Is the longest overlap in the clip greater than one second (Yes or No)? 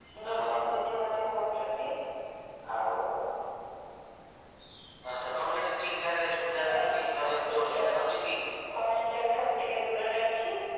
Yes